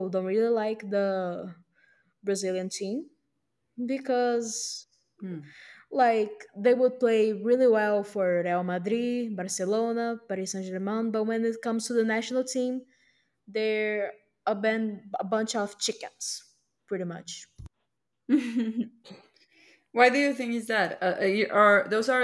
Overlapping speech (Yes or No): No